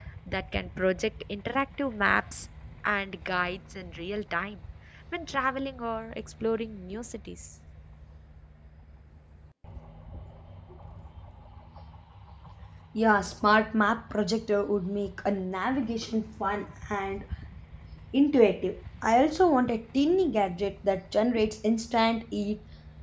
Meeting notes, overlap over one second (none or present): none